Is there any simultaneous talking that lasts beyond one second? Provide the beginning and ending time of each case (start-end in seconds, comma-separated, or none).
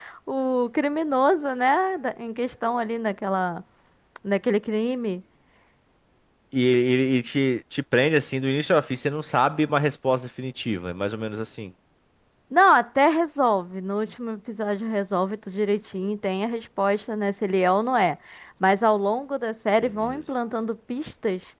none